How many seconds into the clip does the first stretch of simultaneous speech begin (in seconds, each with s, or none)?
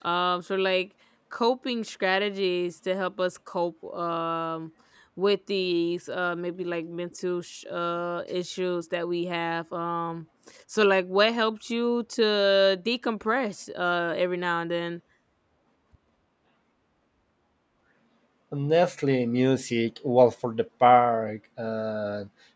none